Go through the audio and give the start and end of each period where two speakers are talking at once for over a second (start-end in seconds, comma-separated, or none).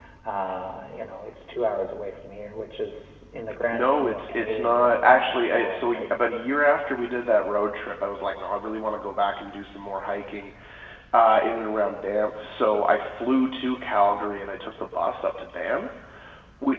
3.7-6.1